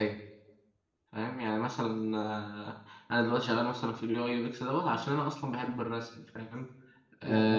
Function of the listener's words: listening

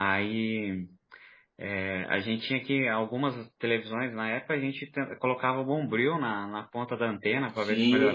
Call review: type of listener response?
taking over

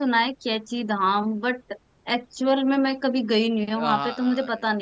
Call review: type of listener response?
taking over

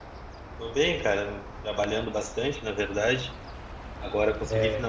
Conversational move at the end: listening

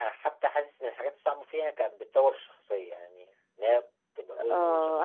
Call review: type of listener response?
taking over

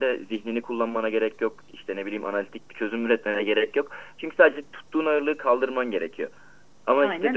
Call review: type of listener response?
listening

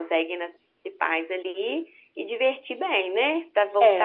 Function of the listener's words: taking over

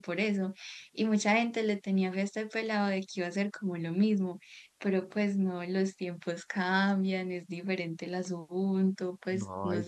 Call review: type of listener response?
taking over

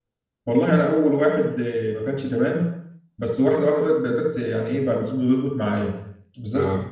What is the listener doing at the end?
listening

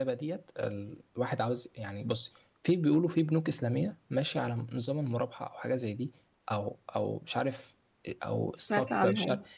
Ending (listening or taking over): listening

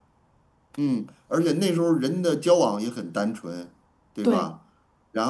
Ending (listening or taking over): listening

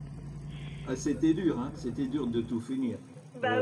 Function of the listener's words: taking over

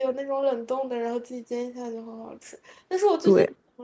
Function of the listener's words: listening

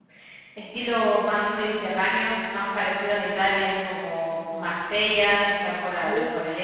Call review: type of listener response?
listening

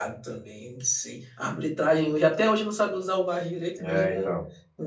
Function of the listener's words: listening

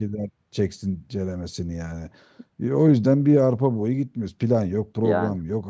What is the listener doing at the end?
listening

